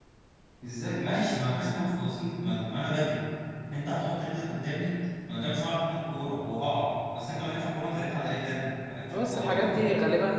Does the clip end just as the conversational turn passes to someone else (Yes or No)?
Yes